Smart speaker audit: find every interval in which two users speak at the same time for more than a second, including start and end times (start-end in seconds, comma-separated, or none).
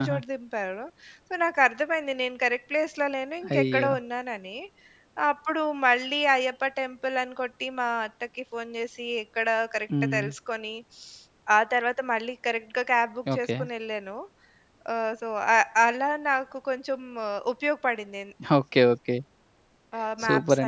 none